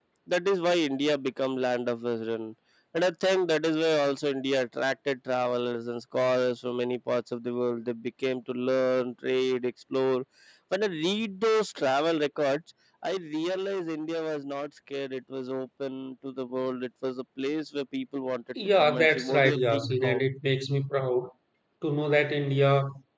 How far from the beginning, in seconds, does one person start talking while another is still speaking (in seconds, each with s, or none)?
18.6 s